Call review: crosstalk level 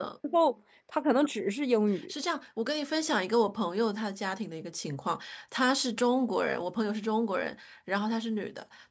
none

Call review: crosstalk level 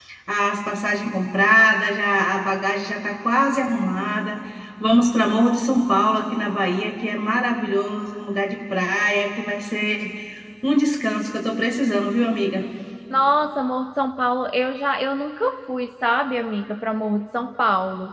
none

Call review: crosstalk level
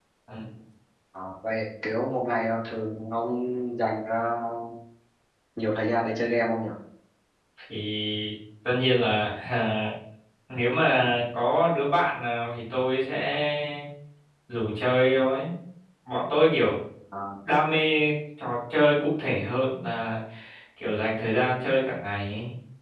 none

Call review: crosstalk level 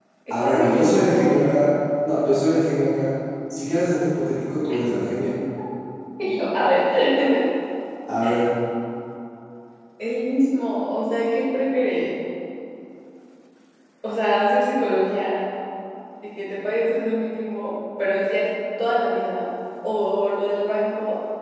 present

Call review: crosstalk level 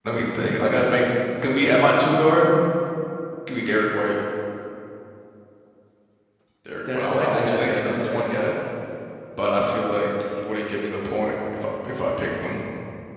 present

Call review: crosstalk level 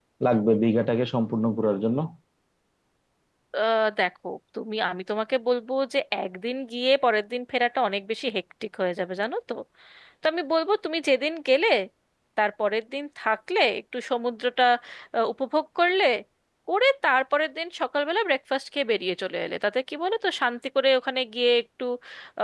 none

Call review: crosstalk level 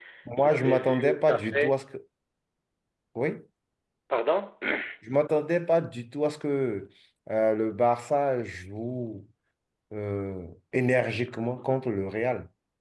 present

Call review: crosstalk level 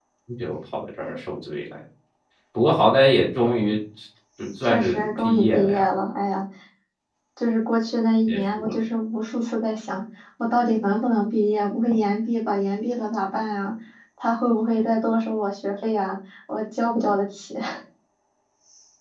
present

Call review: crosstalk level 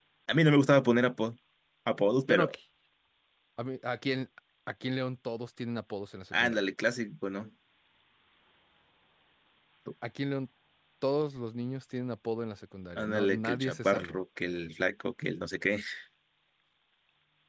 present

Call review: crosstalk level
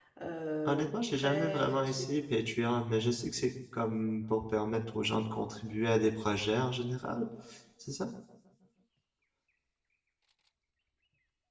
present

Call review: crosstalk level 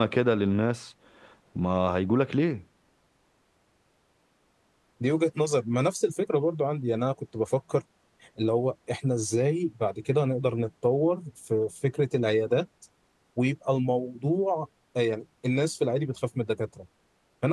none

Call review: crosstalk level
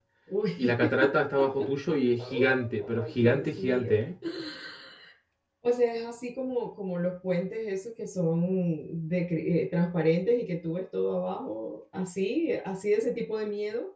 present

